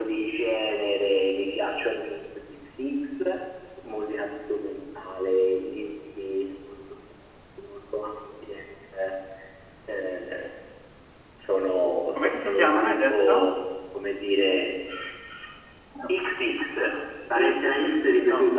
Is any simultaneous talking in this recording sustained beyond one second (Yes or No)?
Yes